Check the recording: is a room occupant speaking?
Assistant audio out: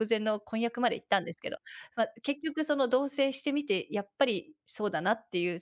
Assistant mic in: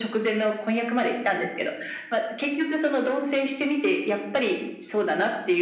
No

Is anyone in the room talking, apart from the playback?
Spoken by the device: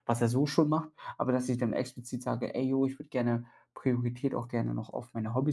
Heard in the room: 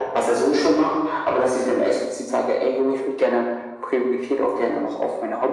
No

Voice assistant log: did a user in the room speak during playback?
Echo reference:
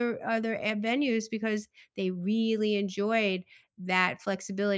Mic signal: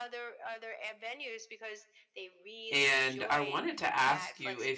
Yes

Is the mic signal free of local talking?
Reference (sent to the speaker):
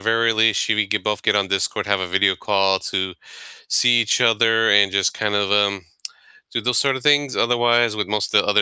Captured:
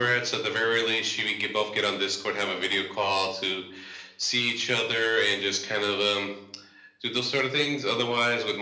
Yes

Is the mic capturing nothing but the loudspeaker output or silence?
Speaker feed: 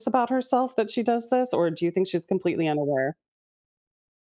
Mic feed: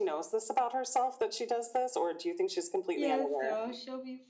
No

